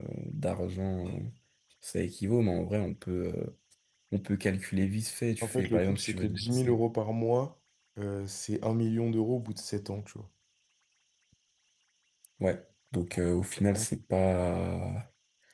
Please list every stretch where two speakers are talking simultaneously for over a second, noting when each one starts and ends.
5.4-6.8

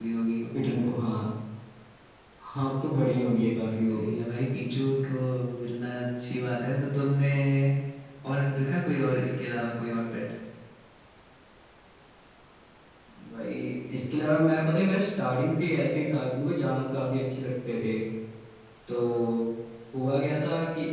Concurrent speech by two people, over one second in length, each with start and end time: none

